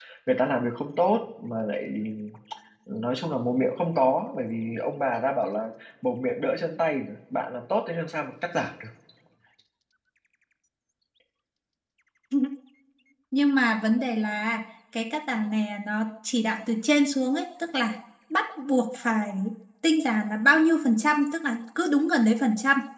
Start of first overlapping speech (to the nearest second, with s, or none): none